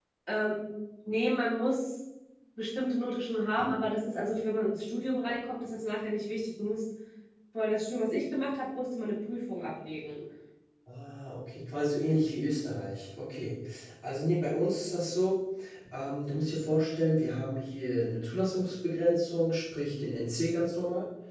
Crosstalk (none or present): none